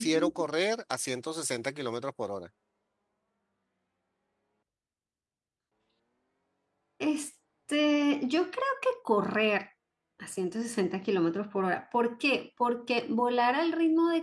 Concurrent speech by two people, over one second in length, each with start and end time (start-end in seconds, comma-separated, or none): none